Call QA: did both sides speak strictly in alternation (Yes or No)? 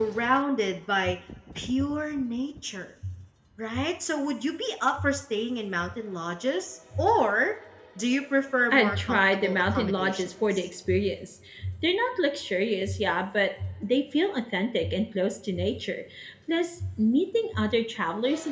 No